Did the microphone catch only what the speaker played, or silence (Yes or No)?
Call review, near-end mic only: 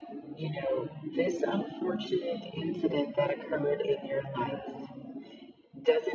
Yes